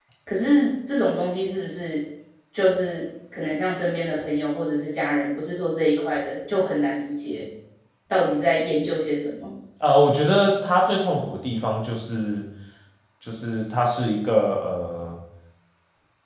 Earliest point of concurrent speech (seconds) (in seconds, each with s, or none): none